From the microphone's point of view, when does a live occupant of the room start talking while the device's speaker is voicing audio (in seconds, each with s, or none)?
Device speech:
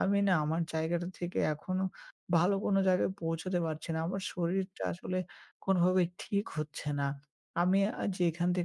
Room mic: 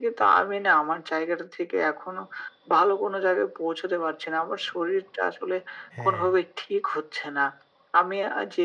6.0 s